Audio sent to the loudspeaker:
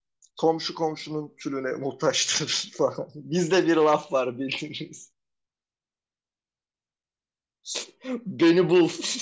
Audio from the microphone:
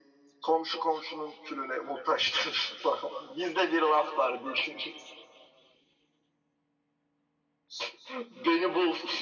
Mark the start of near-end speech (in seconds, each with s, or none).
none